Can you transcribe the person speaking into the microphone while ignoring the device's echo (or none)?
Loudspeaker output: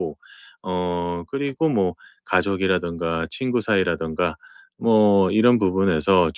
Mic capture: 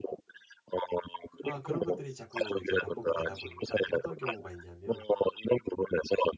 아 그런 것들이 자꾸 이제 반복이 되다 보니까 어떤 경우가 있냐면